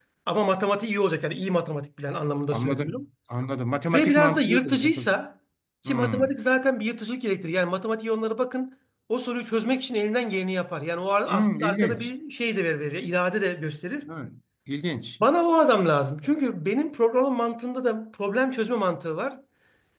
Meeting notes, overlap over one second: present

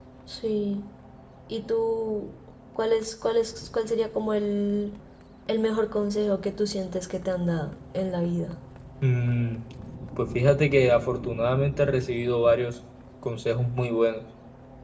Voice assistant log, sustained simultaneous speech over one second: none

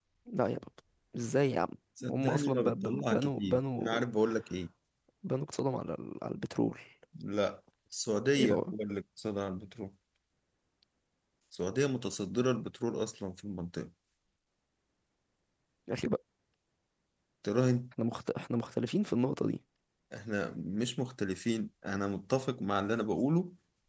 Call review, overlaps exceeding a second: present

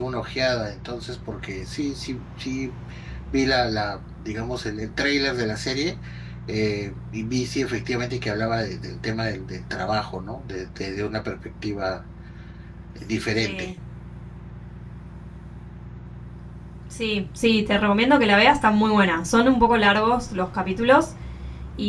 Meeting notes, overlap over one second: none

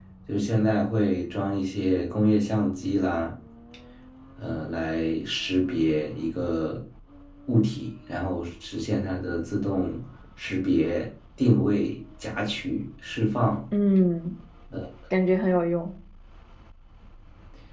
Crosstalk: none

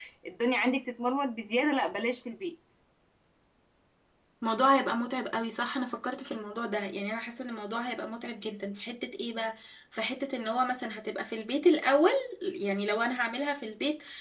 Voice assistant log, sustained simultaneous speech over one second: none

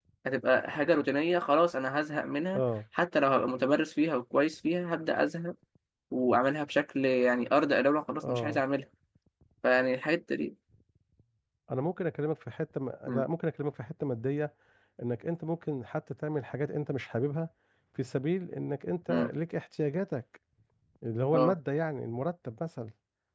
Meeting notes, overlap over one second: none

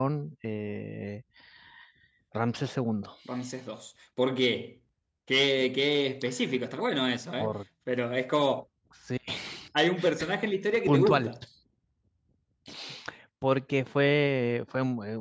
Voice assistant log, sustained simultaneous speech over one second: none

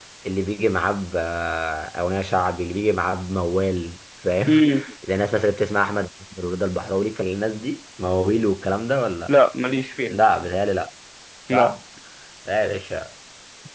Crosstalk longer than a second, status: none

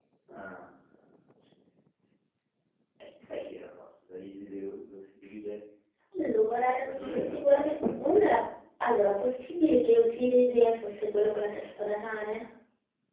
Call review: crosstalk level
present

